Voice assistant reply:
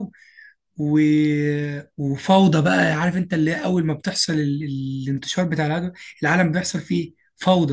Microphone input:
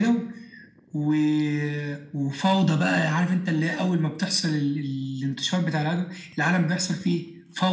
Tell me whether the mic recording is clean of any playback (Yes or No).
No